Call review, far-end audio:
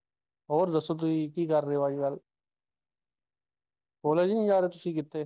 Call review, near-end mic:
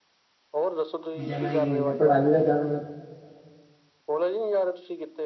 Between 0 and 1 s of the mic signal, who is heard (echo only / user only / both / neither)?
echo only